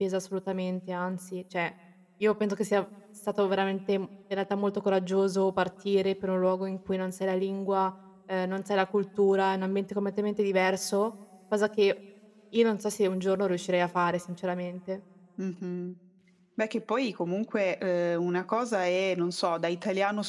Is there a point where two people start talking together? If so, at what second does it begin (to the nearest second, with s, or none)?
none